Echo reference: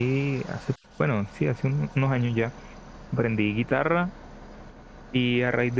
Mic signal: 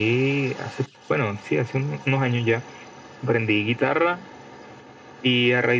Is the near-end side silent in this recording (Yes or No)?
Yes